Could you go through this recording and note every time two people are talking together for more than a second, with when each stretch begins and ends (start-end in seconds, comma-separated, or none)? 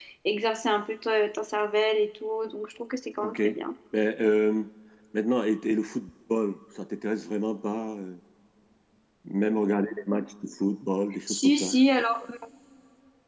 none